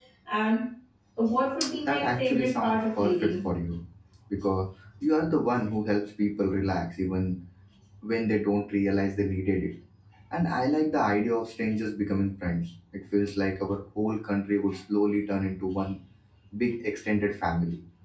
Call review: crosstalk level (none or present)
present